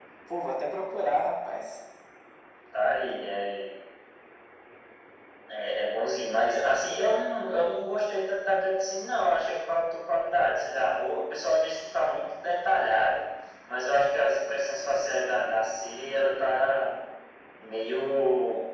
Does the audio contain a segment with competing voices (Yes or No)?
No